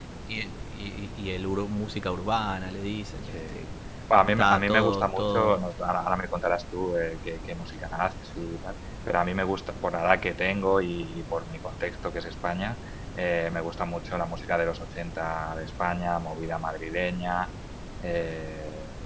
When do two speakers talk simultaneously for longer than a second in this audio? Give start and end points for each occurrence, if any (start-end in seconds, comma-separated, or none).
4.3-5.6